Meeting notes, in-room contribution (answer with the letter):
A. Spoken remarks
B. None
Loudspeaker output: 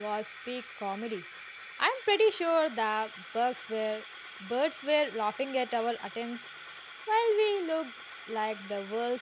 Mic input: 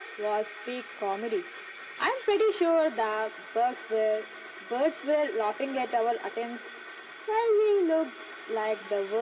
B